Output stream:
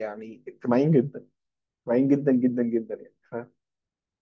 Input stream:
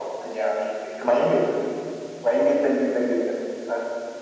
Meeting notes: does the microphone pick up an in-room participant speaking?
No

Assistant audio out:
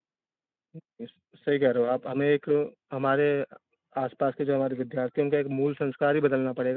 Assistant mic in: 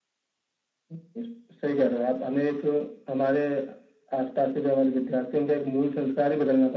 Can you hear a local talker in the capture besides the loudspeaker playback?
No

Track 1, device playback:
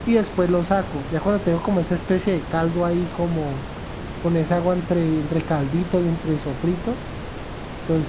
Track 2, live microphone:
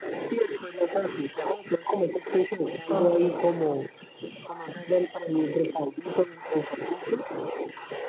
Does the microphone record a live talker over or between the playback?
Yes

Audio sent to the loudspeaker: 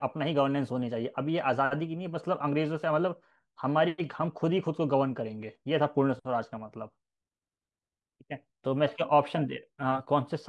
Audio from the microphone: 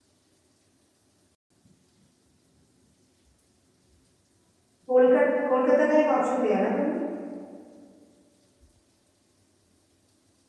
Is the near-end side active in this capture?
Yes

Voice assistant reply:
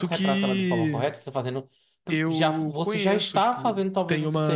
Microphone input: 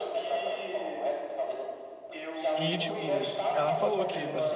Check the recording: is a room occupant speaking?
Yes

